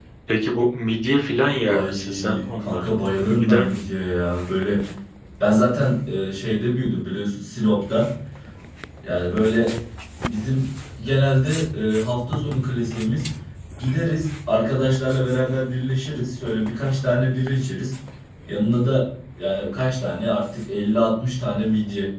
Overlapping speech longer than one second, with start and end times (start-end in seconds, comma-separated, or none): 1.7-2.9